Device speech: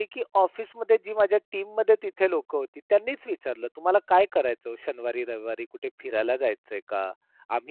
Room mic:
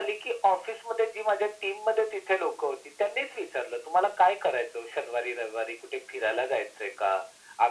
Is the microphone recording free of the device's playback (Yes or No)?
No